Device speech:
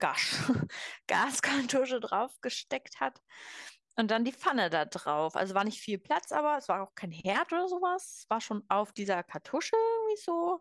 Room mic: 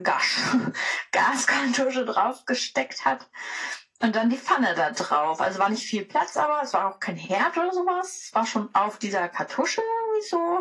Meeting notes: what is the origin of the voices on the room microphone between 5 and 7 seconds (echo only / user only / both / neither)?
echo only